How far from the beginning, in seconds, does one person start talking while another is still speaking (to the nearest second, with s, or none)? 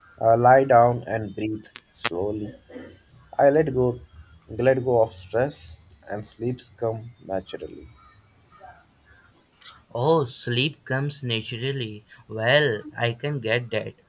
none